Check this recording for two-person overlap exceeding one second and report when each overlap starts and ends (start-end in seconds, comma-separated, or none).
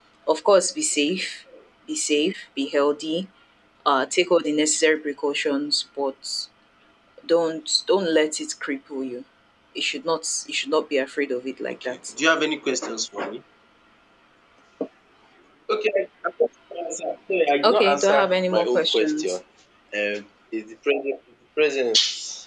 17.6-19.4